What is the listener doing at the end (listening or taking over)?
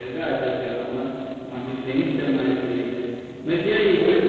listening